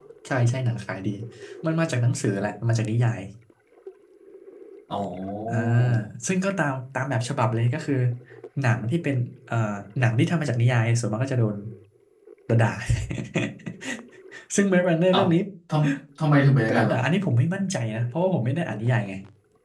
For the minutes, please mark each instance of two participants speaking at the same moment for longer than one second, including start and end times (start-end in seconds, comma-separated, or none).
none